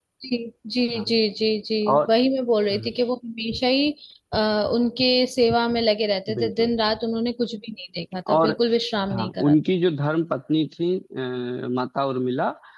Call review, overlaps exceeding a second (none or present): none